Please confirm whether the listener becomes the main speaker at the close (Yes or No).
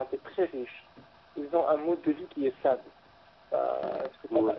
No